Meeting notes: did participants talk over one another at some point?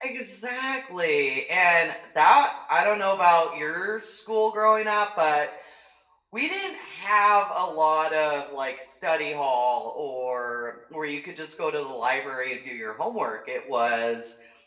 No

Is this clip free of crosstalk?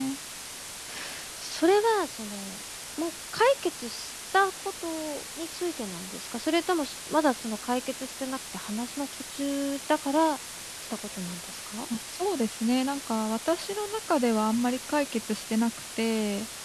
Yes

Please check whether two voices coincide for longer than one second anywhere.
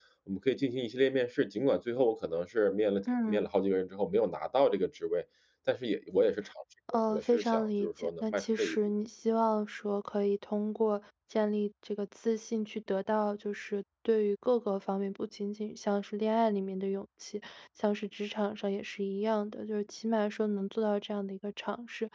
Yes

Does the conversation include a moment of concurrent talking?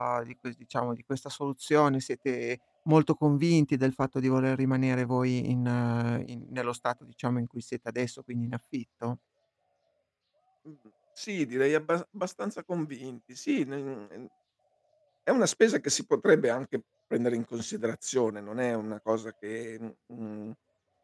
No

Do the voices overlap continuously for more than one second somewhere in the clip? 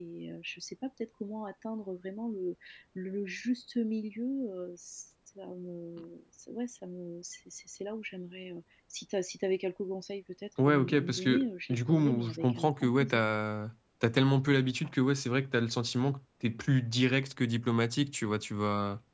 Yes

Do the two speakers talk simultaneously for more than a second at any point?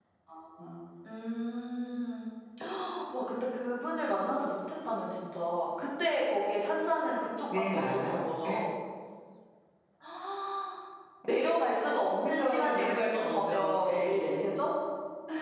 Yes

